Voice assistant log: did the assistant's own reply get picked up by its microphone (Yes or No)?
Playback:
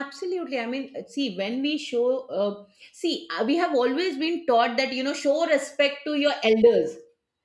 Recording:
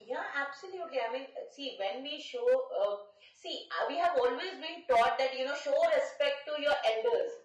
Yes